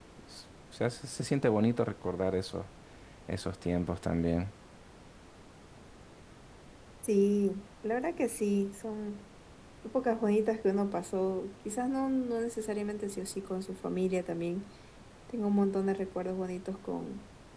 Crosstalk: none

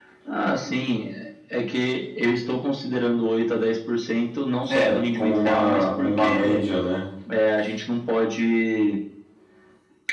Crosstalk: present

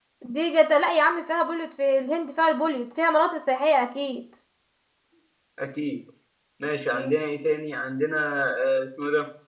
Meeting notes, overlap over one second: none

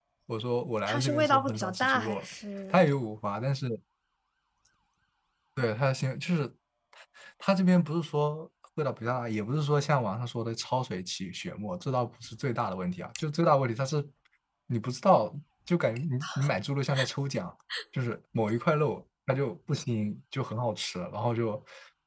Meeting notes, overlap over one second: present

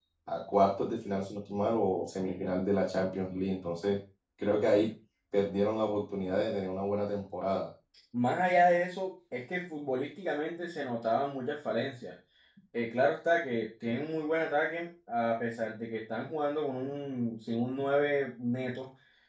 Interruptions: none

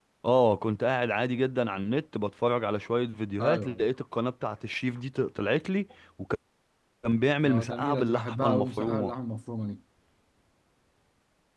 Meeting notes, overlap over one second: present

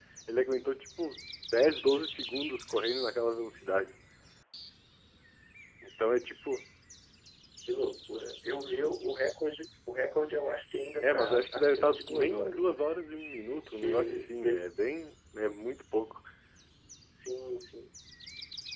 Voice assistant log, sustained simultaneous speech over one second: present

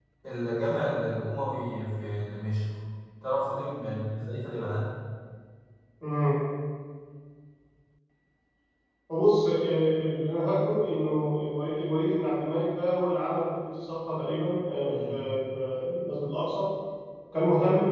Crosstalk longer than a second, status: none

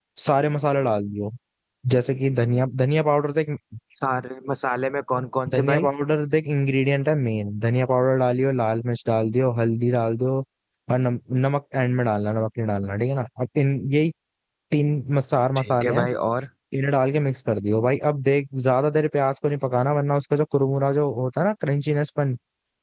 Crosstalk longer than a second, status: none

